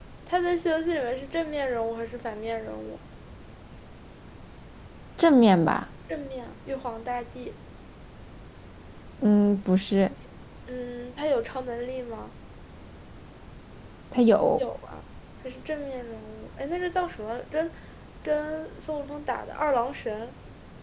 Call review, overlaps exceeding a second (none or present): none